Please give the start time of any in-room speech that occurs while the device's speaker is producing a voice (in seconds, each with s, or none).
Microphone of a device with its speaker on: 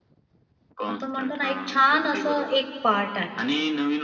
0.9 s